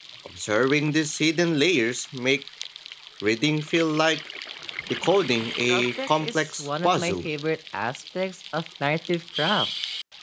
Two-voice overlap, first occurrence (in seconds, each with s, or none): 5.7 s